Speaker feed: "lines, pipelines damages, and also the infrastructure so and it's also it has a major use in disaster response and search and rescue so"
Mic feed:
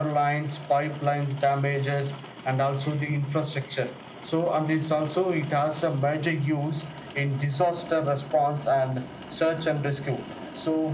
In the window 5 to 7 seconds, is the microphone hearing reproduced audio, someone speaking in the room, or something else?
echo only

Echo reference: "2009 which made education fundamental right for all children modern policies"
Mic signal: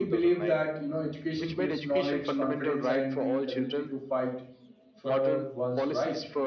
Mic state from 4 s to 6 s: both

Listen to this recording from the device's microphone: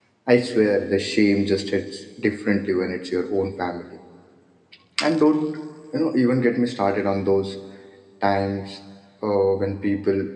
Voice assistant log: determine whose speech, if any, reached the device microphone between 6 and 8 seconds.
user only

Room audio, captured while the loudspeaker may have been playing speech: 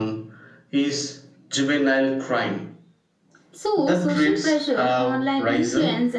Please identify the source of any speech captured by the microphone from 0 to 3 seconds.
echo only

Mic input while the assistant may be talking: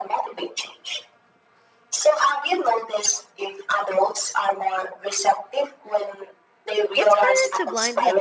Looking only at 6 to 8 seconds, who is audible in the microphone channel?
both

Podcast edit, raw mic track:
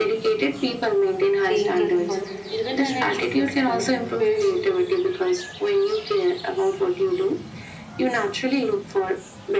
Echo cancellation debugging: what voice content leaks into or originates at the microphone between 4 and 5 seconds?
both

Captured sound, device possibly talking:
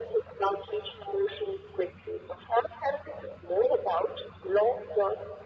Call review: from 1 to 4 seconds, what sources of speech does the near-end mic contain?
echo only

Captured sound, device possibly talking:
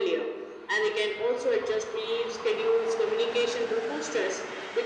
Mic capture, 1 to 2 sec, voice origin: echo only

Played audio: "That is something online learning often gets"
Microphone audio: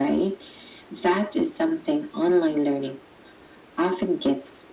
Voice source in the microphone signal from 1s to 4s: echo only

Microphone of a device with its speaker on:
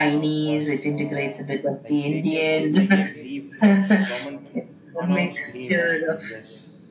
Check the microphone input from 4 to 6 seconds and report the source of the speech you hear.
both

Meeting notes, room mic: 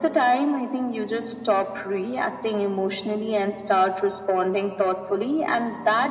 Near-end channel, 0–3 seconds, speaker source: echo only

